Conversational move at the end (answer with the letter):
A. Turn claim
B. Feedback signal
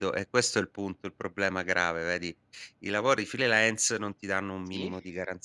B